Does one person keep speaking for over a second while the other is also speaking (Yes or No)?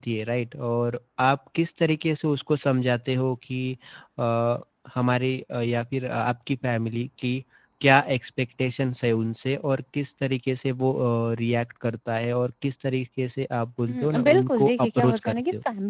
Yes